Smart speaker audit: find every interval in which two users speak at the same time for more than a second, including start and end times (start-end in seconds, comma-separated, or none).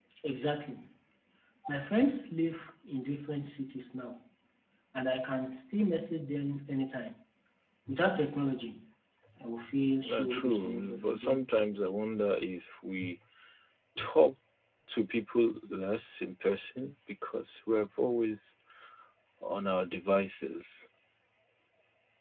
10.0-11.4